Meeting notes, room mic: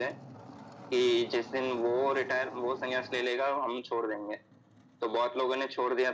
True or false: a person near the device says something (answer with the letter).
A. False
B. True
A